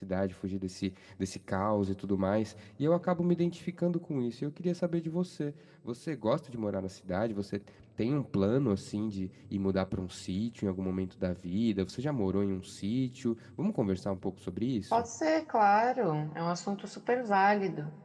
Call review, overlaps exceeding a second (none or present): none